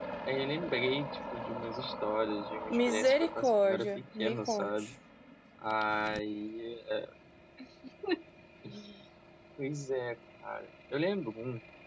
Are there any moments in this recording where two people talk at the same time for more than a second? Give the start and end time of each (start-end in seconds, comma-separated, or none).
2.7-4.9